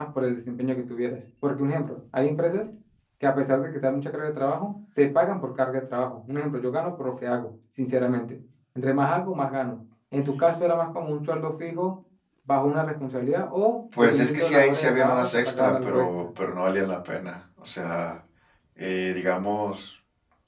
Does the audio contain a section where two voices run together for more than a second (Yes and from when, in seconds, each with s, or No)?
Yes, from 13.9 s